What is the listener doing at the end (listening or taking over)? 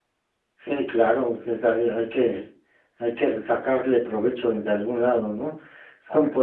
listening